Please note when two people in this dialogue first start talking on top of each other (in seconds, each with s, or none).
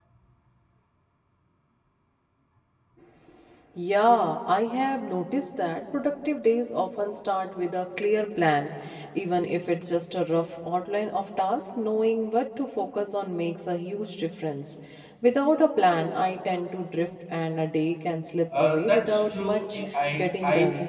18.5 s